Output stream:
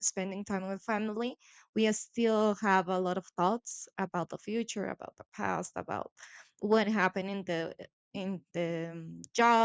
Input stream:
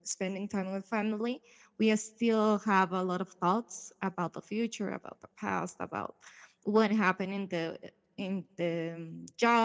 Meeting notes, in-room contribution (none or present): none